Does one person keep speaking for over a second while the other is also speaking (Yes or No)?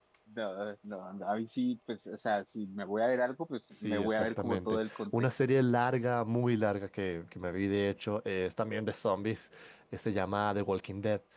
Yes